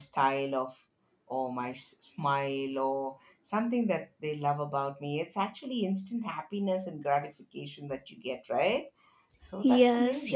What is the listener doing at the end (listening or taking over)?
taking over